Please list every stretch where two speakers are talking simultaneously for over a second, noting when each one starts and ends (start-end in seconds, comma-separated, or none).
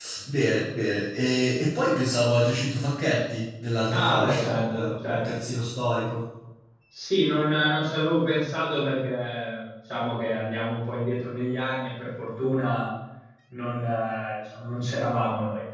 3.9-5.2